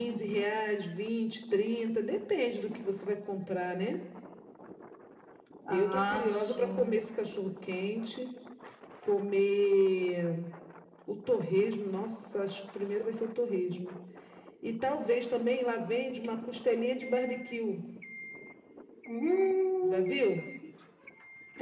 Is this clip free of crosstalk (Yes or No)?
No